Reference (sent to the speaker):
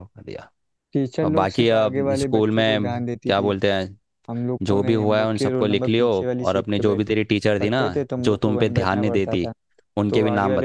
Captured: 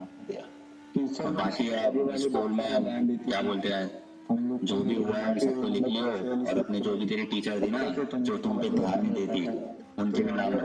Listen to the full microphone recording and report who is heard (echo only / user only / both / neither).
echo only